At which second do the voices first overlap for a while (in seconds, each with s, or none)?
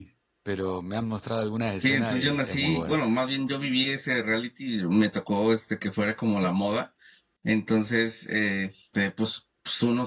1.8 s